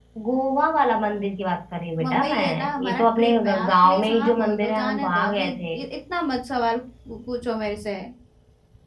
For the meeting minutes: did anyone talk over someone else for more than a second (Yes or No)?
Yes